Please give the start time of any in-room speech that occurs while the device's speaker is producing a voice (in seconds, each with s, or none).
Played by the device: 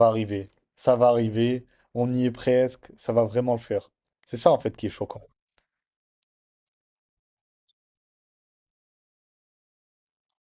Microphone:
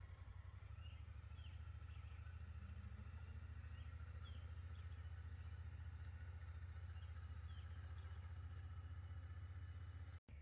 none